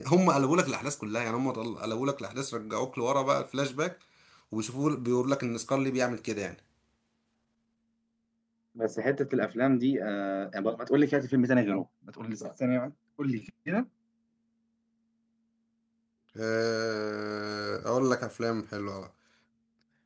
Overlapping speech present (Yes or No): No